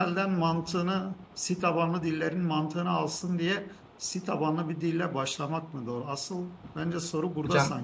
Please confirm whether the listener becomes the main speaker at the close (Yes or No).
Yes